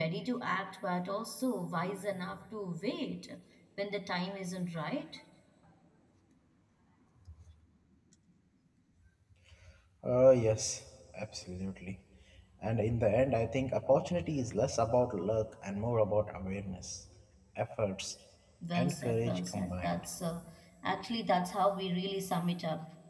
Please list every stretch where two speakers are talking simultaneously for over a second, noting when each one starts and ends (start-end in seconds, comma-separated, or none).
18.7-20.0